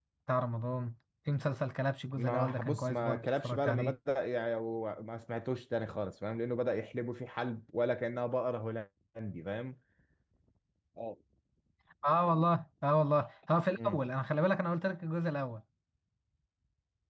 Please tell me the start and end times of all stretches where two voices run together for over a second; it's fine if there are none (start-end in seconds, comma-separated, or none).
2.2-4.0